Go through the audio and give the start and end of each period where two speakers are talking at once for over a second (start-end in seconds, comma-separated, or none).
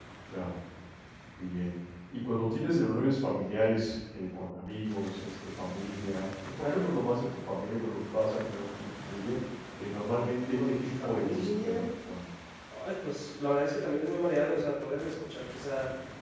10.5-11.8